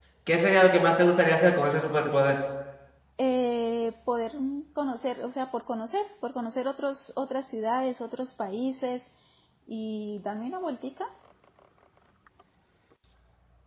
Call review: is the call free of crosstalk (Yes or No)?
Yes